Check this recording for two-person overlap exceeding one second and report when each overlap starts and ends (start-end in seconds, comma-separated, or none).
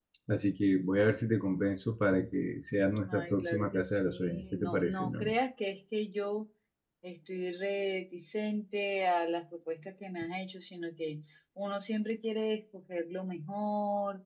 3.1-5.3